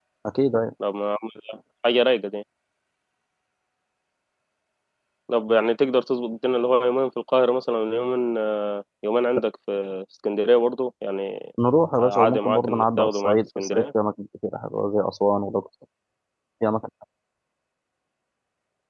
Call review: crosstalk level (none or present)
present